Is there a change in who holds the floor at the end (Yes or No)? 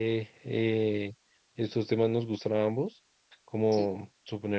No